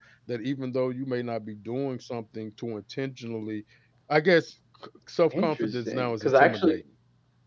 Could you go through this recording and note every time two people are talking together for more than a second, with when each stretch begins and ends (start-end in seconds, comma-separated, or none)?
5.3-6.8